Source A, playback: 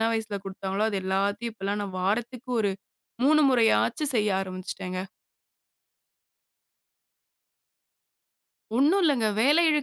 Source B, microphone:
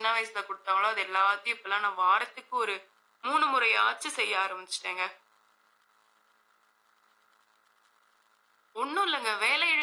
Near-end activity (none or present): none